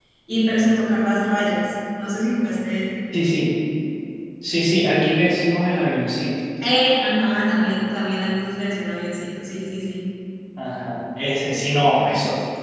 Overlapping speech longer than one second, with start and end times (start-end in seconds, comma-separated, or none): none